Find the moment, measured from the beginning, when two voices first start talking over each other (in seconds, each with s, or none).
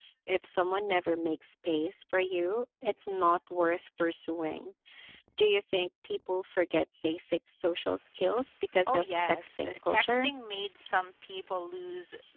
8.9 s